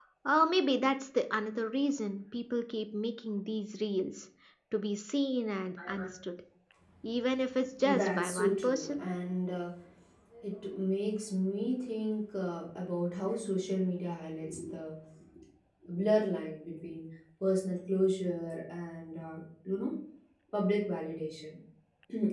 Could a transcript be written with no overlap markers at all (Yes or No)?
No